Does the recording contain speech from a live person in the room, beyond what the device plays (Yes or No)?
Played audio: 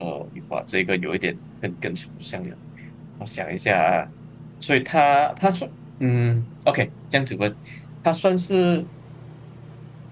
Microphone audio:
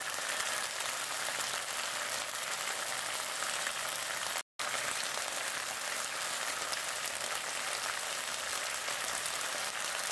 No